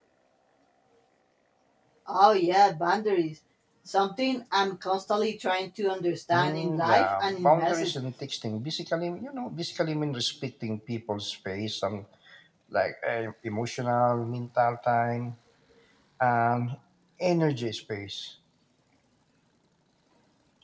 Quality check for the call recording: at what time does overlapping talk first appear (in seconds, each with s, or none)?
6.3 s